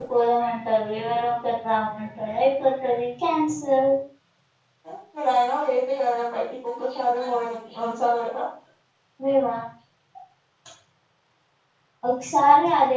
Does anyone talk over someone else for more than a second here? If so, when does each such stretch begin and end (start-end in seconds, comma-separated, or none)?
none